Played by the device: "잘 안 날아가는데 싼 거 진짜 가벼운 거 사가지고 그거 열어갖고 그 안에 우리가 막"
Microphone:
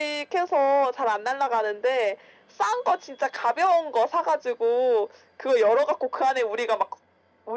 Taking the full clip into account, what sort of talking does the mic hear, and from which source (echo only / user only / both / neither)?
echo only